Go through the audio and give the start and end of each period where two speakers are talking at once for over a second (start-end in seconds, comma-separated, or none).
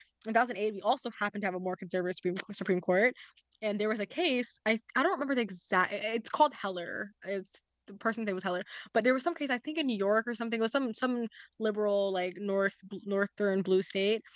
none